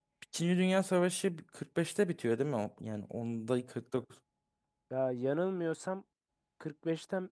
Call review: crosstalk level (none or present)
none